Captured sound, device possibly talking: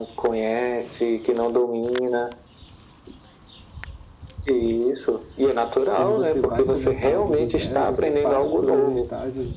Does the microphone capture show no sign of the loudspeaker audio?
No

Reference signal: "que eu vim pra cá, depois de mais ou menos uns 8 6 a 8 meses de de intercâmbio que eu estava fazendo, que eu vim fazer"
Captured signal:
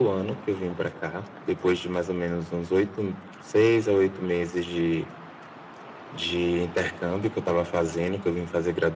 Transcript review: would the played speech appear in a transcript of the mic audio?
Yes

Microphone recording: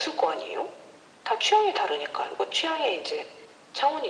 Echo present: Yes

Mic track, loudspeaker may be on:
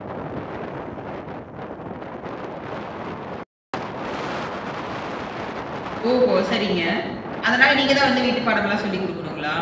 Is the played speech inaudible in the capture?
Yes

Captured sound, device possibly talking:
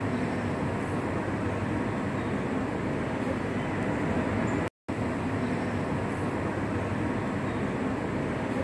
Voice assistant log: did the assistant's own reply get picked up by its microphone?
No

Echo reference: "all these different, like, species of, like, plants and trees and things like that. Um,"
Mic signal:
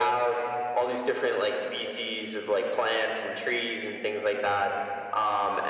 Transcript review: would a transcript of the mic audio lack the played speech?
No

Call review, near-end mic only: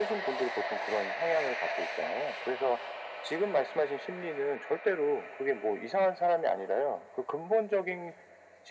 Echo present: Yes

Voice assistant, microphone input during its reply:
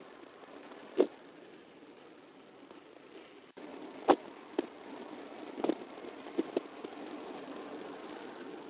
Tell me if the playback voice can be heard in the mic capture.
No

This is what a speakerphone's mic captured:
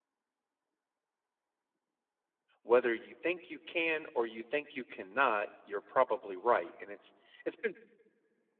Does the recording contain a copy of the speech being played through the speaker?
No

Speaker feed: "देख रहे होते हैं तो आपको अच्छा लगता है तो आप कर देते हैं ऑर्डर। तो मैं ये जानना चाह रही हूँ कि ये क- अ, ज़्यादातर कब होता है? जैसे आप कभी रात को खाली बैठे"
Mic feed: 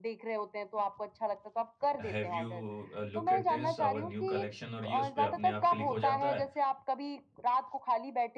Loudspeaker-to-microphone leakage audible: Yes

